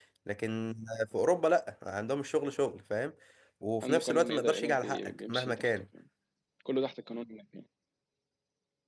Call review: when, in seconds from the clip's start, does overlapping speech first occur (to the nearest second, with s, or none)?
4 s